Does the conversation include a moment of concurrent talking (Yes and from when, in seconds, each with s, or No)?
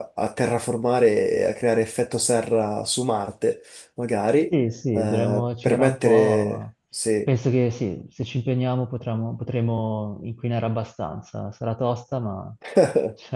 Yes, from 4.9 s